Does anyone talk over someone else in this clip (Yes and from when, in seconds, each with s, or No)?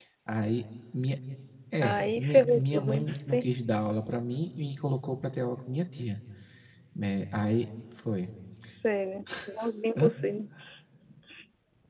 Yes, from 1.8 s